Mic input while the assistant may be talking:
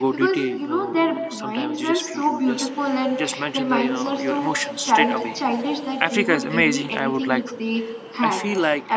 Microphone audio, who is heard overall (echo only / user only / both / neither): both